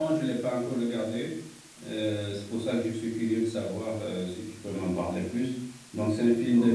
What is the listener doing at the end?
listening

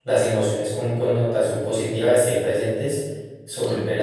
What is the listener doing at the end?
listening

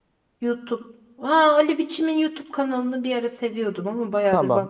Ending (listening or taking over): taking over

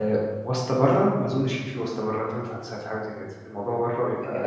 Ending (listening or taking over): taking over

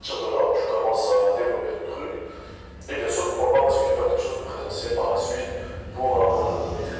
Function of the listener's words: listening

